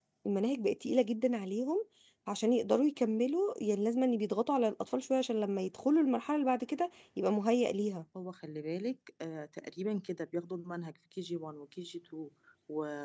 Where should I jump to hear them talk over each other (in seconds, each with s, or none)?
none